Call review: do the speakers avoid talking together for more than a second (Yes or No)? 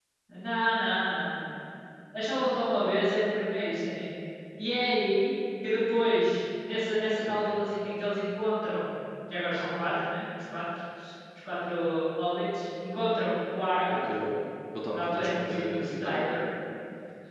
No